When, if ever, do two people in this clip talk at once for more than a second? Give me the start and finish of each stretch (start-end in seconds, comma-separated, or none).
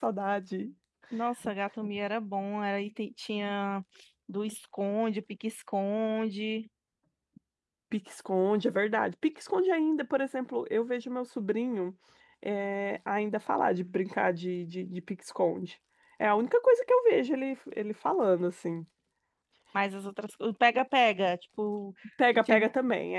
none